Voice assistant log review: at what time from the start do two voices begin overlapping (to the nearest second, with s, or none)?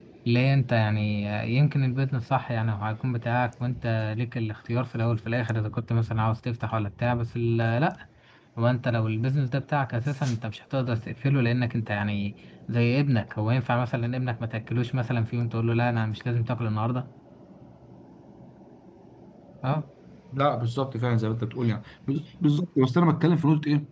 none